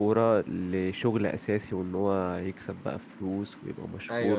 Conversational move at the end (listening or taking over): taking over